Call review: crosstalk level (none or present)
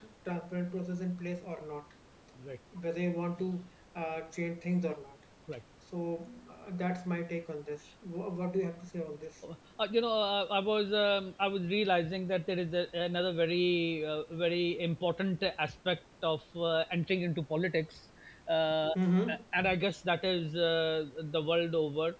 none